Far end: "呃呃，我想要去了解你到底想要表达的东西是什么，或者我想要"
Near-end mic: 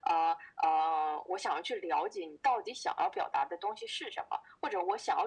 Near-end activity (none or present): none